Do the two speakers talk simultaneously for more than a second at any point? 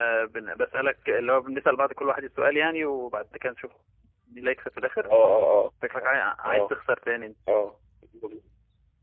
No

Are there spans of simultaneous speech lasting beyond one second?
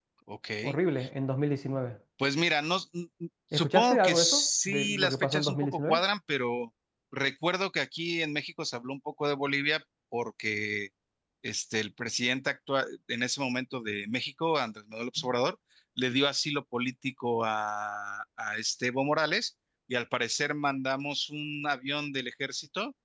Yes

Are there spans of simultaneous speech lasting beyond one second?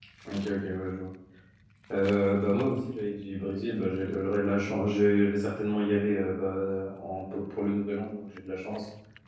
No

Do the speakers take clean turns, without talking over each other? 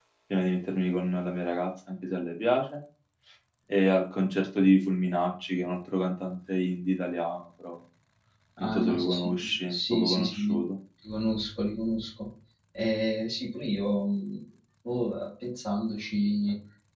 No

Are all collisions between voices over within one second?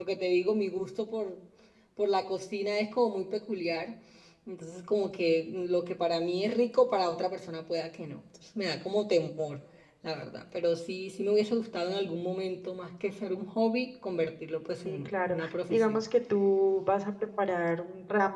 No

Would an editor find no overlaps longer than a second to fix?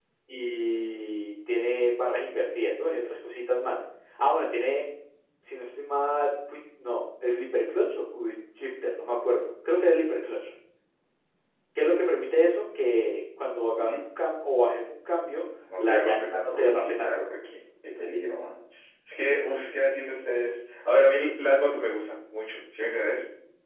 No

